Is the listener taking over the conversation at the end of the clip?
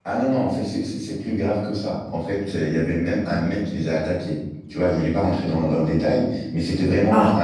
No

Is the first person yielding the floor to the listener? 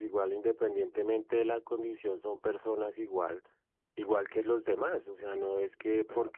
No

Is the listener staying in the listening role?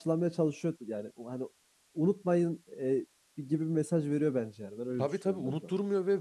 No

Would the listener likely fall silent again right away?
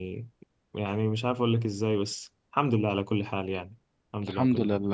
No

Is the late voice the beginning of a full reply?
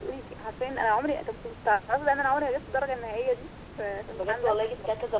Yes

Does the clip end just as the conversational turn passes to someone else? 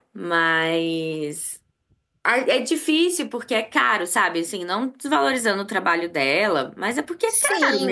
Yes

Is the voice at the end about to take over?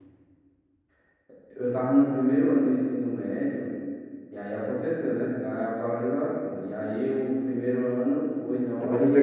Yes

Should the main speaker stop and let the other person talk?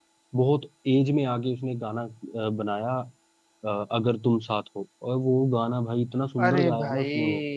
Yes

